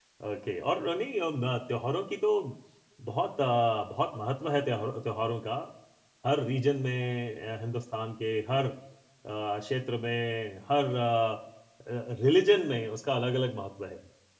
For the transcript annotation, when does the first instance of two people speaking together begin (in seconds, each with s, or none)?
none